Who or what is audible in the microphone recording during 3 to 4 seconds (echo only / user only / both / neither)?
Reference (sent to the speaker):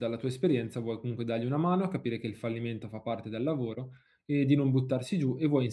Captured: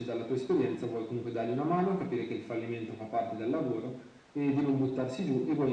echo only